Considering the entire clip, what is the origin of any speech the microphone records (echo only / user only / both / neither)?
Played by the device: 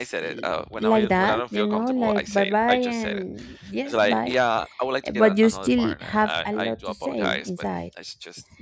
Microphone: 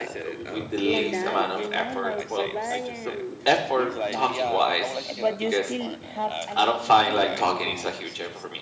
both